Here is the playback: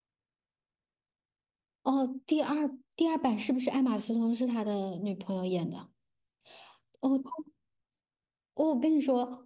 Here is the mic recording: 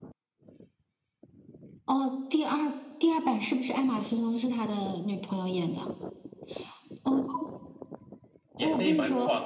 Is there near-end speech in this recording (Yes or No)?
Yes